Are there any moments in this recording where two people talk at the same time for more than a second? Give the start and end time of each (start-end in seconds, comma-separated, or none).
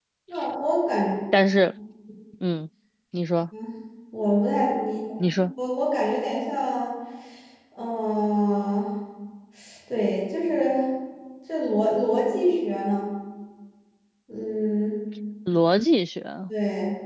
none